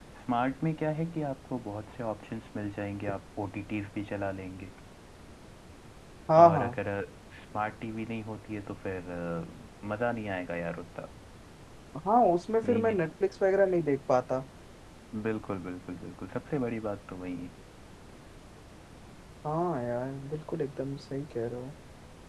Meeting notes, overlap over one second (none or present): none